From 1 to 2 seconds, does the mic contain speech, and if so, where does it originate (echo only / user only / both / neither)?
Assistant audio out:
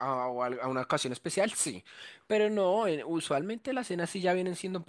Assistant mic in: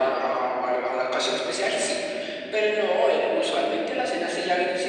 echo only